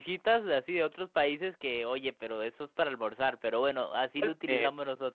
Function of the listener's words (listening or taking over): taking over